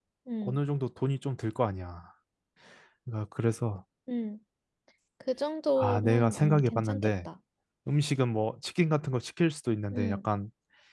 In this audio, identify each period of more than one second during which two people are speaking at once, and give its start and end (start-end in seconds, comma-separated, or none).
5.8-7.3